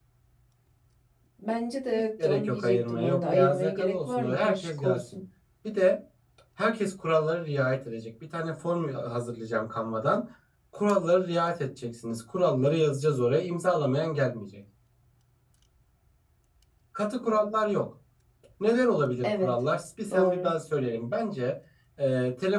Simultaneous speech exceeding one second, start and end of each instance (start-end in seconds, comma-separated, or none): 1.9-5.0